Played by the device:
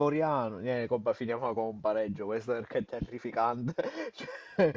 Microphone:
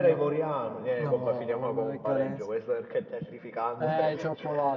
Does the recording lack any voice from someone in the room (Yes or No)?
No